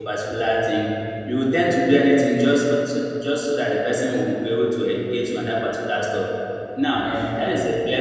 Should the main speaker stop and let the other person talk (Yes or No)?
No